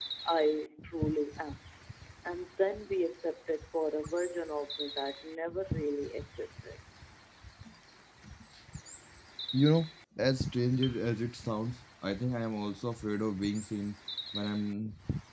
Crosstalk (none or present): none